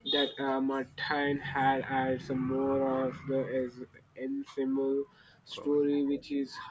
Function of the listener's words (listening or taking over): listening